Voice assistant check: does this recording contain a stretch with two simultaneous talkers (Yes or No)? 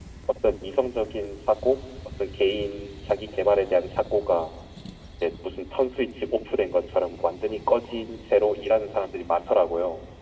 No